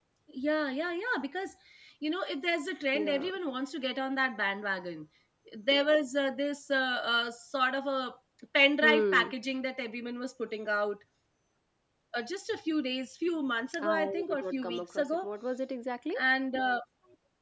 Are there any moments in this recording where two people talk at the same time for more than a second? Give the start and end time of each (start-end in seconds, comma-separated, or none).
13.8-15.3